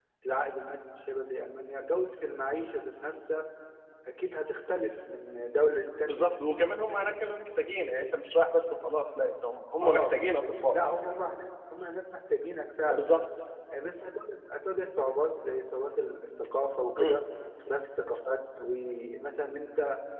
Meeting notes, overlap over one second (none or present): none